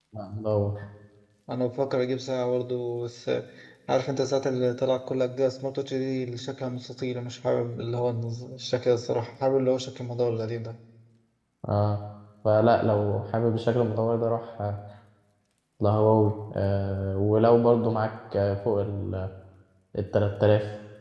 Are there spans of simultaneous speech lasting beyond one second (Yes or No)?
No